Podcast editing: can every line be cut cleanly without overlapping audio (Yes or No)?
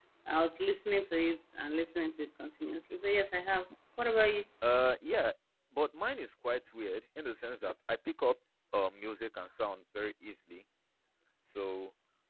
Yes